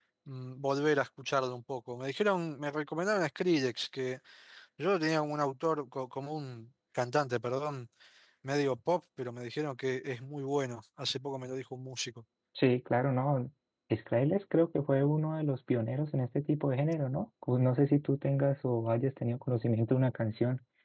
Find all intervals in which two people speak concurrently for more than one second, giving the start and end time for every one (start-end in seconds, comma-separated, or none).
none